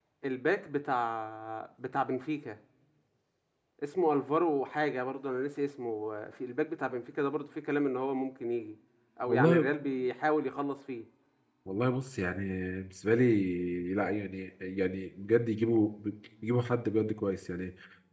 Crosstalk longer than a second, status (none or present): none